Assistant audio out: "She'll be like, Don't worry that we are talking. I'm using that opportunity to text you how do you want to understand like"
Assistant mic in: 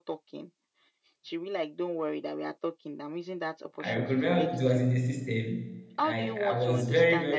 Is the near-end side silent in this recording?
No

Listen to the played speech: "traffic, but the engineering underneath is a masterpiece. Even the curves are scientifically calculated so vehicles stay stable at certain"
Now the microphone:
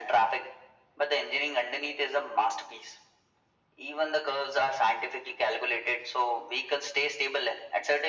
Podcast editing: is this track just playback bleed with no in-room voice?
Yes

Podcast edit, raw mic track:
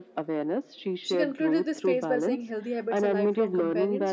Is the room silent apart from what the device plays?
No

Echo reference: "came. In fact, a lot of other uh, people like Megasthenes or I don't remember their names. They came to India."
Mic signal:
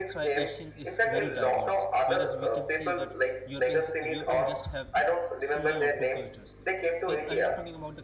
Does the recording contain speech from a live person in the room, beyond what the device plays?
Yes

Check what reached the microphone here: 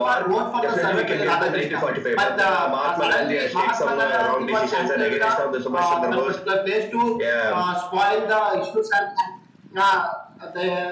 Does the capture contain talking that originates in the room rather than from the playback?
No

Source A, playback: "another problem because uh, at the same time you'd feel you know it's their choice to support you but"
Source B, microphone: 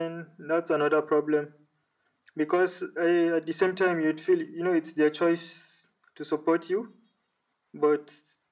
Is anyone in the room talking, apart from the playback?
No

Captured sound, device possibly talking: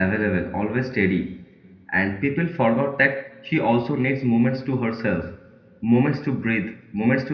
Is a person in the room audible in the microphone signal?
Yes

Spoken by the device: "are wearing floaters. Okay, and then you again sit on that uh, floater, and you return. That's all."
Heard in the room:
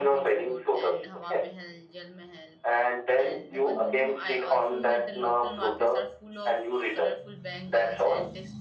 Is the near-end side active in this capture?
Yes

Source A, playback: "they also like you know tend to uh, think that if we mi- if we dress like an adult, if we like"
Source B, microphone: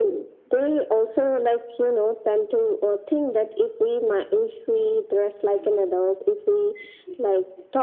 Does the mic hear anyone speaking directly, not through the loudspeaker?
No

